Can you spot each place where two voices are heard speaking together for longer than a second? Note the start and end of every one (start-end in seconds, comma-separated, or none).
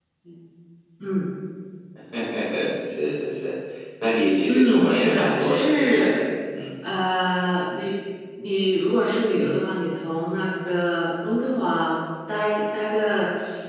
4.5-6.1